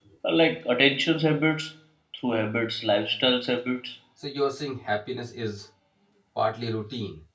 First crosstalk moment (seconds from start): none

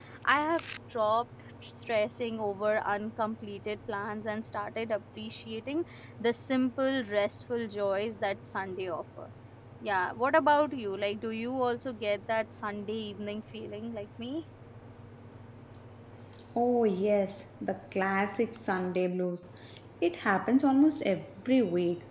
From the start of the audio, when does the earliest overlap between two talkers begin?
none

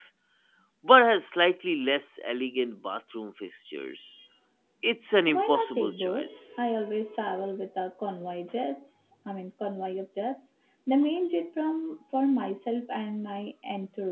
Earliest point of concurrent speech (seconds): 5.3 s

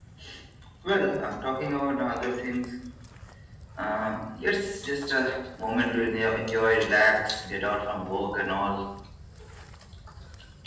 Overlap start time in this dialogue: none

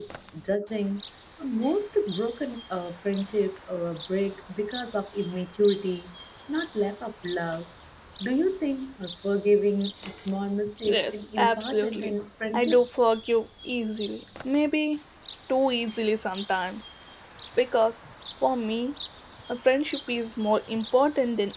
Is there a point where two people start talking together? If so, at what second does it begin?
10.8 s

